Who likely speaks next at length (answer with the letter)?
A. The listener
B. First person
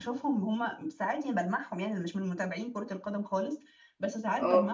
B